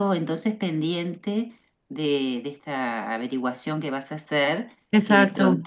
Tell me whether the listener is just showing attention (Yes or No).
Yes